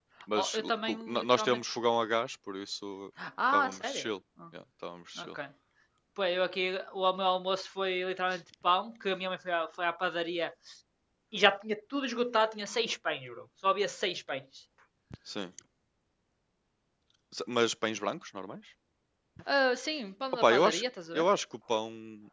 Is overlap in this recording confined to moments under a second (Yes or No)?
No